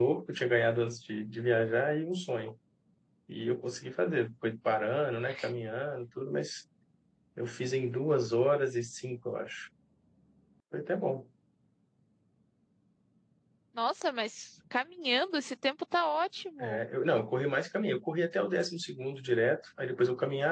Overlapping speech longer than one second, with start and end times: none

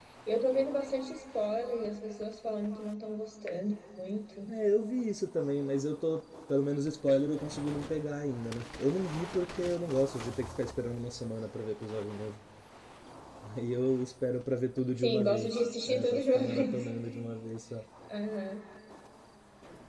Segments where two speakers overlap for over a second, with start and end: 15.0-16.9

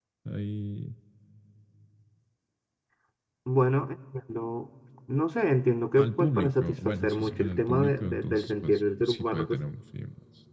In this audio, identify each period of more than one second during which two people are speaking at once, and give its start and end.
6.0-9.6

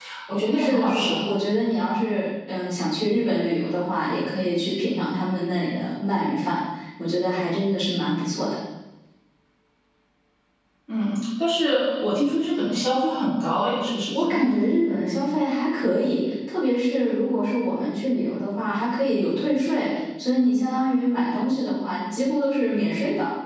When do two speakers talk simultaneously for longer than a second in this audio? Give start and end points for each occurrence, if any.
none

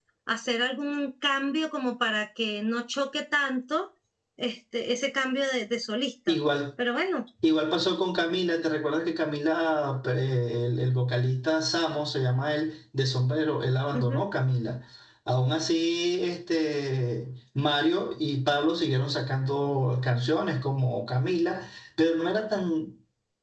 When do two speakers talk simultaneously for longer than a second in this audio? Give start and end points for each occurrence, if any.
none

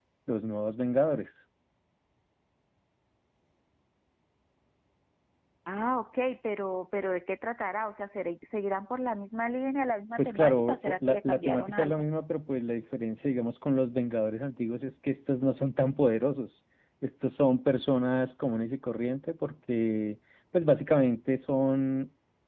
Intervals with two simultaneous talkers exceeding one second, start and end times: 10.2-12.0

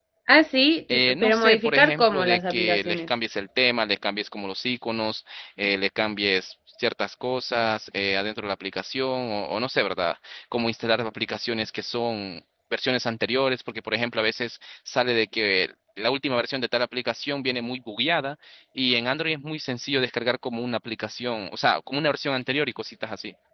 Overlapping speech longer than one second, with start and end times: 0.9-3.1

